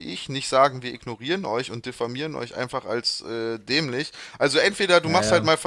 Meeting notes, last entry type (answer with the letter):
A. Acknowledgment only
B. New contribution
A